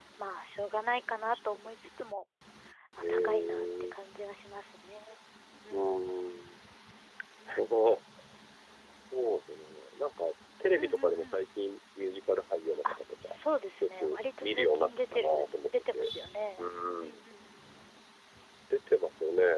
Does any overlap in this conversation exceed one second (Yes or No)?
Yes